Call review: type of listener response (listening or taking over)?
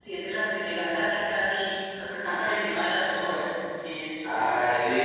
taking over